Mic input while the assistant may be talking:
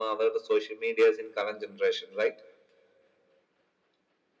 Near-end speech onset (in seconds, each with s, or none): none